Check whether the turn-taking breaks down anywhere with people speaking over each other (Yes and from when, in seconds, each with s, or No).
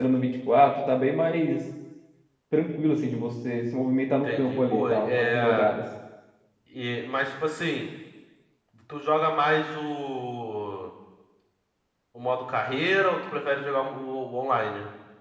Yes, from 4.2 s